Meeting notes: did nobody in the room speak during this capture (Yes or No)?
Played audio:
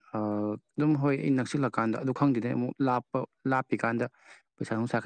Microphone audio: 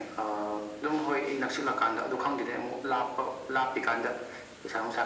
Yes